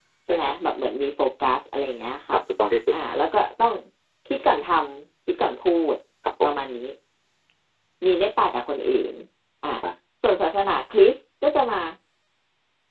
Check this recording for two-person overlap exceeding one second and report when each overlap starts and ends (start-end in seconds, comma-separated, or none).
none